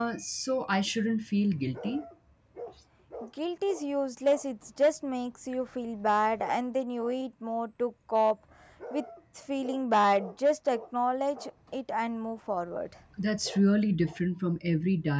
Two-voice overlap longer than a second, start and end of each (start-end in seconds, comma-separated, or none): none